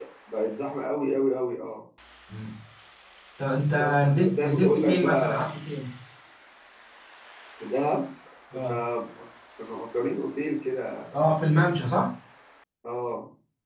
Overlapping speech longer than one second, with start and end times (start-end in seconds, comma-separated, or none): 3.8-5.4